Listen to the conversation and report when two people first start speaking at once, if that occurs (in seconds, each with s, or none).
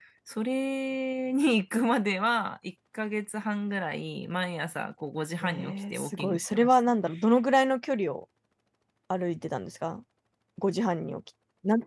5.4 s